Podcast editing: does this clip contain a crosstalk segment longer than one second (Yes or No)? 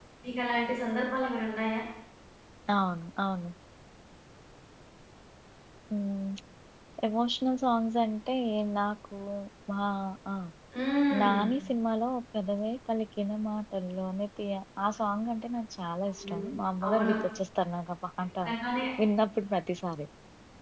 No